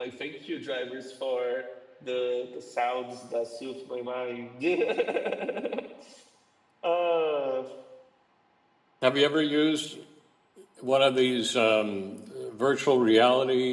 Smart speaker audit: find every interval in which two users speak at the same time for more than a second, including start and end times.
none

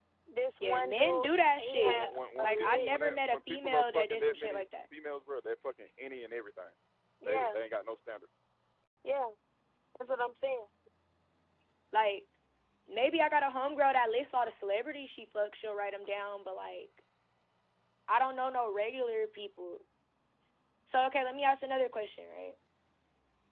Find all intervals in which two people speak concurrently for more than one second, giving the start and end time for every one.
0.6-4.6

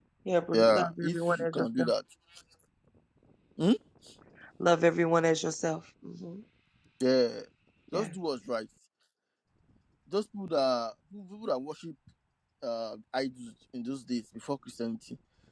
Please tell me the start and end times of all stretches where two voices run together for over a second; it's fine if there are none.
0.5-1.9

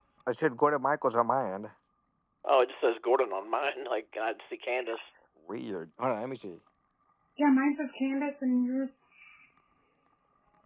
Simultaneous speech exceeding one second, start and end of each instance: none

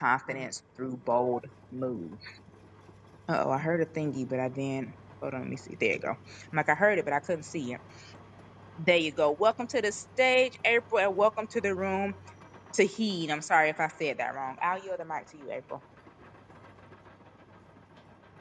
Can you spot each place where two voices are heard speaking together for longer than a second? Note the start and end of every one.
none

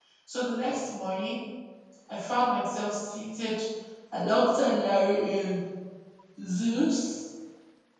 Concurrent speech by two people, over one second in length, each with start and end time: none

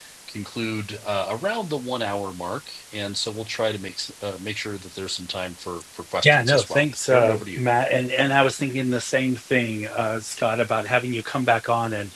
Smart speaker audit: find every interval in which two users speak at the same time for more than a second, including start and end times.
6.2-7.6

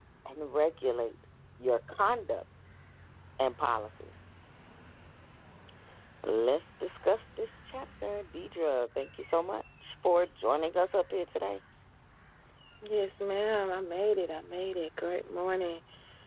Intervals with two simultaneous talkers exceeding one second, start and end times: none

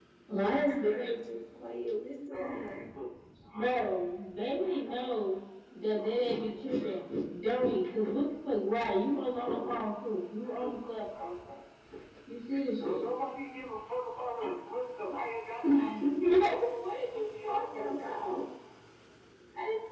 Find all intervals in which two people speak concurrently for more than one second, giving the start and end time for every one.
none

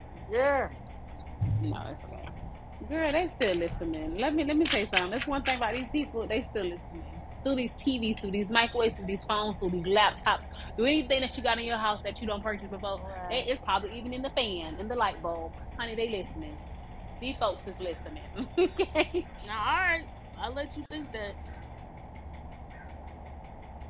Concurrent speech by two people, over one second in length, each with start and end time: none

